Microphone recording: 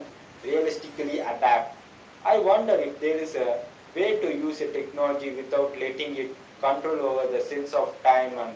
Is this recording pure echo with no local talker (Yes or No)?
Yes